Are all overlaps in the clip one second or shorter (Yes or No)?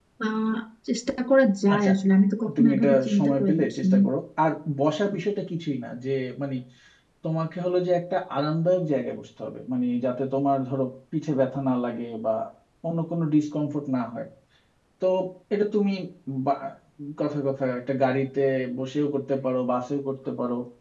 No